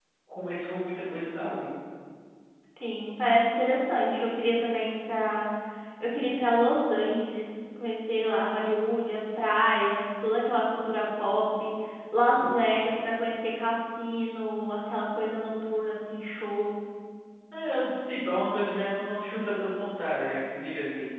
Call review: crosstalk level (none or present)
none